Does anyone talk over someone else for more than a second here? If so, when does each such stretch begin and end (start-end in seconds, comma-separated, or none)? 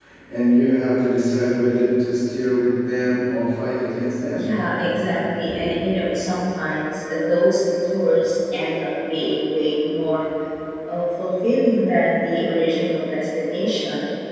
none